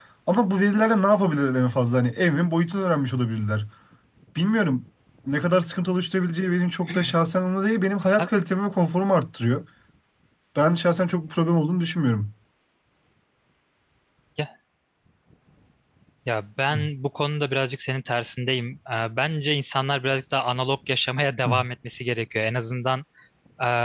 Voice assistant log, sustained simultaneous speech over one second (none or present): none